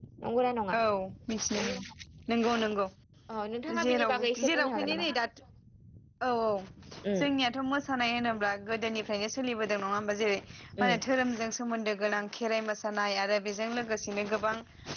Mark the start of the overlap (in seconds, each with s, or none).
3.8 s